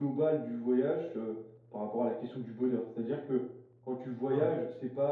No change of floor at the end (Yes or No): Yes